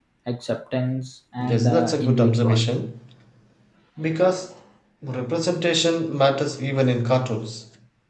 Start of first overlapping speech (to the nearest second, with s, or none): 1 s